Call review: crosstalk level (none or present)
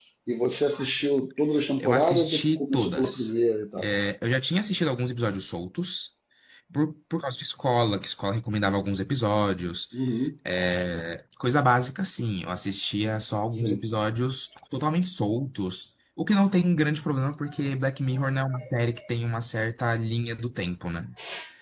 present